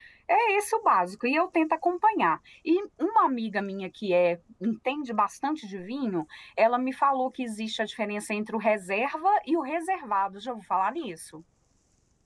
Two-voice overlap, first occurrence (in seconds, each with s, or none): none